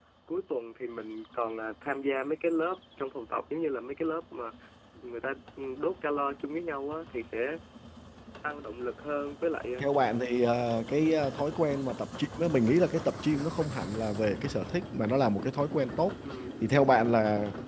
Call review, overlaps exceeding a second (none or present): none